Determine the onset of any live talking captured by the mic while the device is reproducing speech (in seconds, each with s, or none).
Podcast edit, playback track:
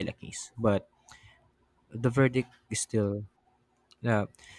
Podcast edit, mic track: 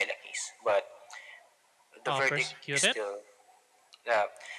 2.1 s